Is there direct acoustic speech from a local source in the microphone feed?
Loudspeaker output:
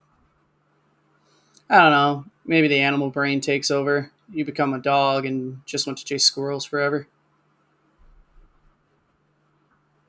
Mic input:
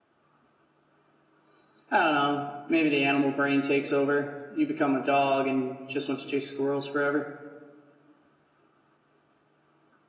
No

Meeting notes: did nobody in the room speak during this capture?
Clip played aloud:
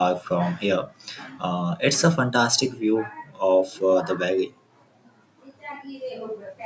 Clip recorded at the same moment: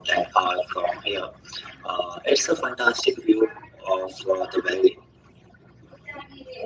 Yes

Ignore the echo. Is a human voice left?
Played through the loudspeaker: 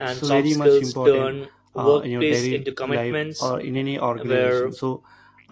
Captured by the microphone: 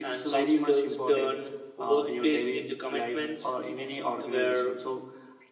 No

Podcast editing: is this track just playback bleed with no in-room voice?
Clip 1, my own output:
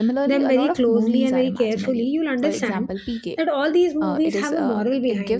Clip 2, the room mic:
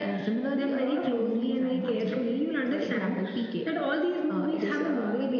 Yes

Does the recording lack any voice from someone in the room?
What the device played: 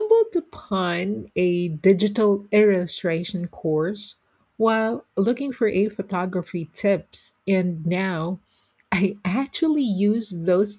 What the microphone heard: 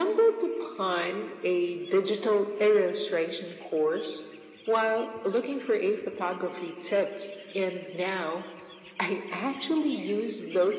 Yes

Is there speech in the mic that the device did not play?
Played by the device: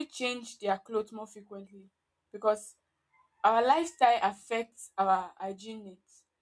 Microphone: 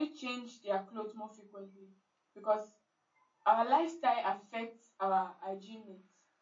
No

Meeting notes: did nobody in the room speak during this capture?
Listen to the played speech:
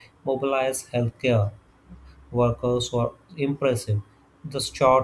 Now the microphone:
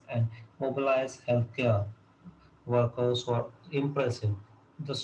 Yes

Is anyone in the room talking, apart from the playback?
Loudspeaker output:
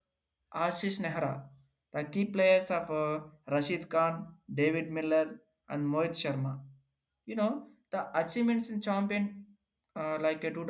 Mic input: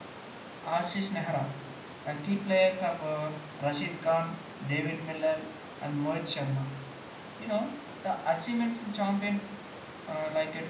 No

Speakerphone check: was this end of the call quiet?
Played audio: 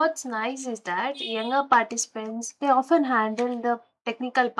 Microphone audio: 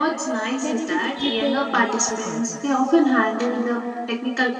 No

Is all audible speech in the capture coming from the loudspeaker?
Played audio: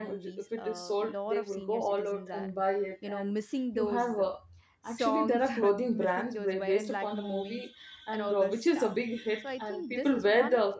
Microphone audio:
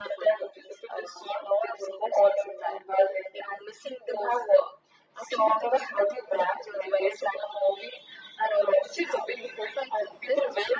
Yes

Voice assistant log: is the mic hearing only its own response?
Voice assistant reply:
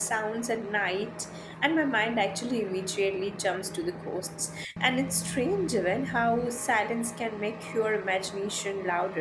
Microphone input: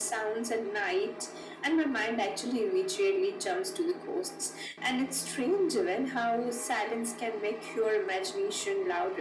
Yes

